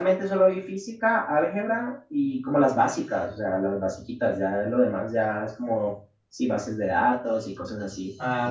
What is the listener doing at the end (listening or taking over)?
taking over